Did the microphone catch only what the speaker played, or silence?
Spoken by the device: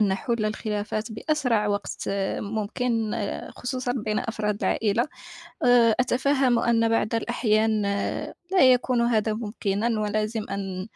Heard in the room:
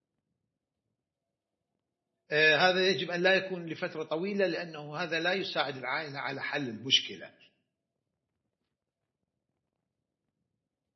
No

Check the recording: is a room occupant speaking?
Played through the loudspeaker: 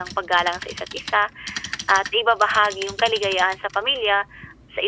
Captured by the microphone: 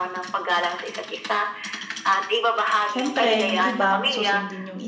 Yes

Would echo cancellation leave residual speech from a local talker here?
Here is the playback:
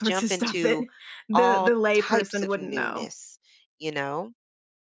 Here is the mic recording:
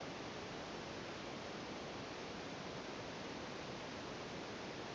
No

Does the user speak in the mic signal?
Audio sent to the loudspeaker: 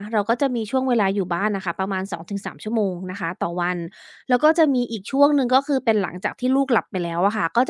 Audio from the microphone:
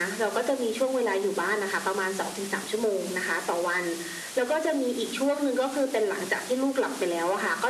No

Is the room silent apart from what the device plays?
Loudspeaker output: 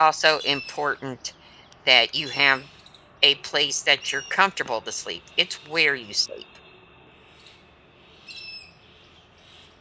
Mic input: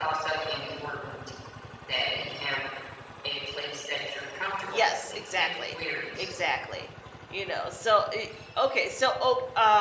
No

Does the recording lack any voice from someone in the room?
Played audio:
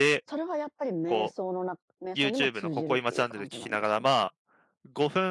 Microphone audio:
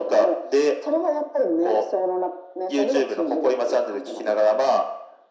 Yes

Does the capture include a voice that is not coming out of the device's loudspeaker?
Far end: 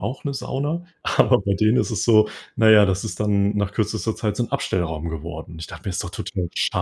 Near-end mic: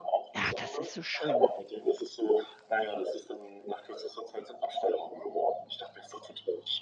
Yes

